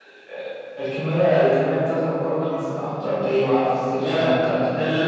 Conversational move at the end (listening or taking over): taking over